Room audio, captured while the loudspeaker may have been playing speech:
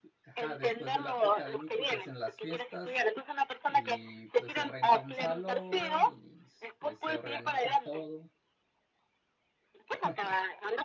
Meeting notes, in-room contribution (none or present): present